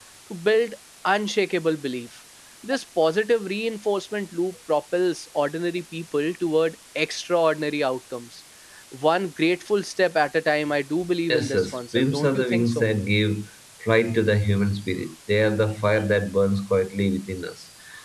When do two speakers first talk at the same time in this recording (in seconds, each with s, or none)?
11.3 s